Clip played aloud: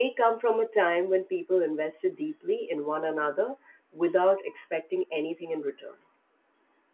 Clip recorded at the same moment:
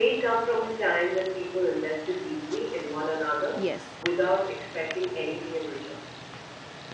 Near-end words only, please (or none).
Yes.